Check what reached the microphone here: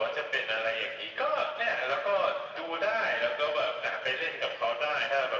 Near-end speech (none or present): none